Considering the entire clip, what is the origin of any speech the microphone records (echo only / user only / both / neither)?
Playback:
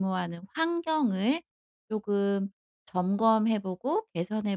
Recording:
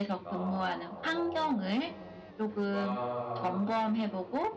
both